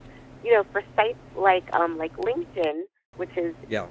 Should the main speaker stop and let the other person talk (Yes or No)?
No